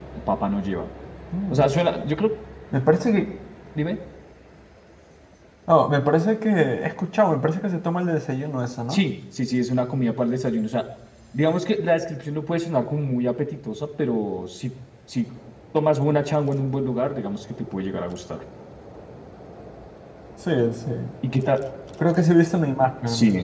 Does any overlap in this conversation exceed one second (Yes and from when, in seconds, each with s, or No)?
No